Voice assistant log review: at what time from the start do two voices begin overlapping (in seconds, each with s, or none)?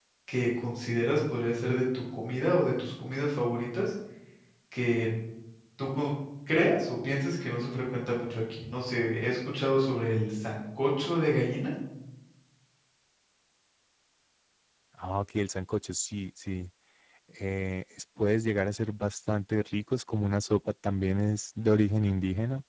none